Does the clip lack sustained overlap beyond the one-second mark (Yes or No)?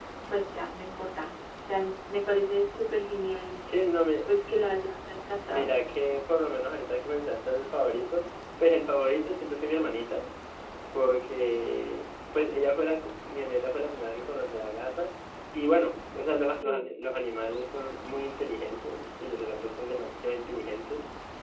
Yes